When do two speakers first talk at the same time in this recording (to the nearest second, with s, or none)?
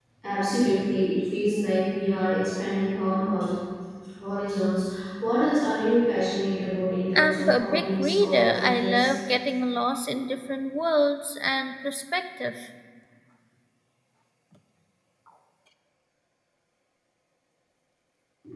7 s